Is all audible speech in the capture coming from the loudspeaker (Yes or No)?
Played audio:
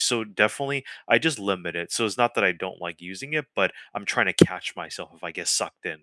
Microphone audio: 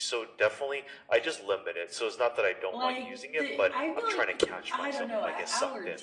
No